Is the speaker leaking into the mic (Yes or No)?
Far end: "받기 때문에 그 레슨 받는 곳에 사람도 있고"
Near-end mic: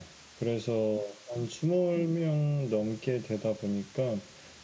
No